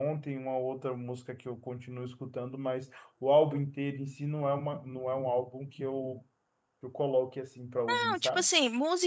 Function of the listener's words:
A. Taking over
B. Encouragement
A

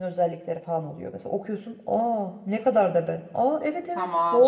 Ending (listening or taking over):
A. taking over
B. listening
A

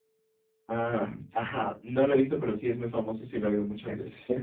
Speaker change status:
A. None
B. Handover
B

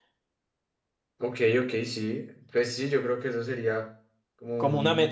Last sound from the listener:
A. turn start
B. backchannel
A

